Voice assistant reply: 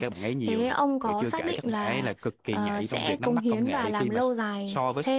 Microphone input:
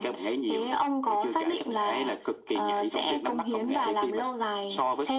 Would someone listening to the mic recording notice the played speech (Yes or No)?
Yes